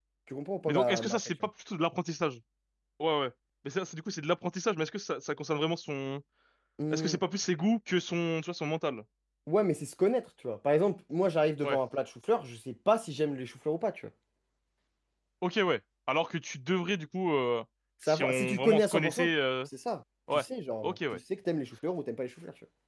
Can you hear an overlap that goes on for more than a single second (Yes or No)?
Yes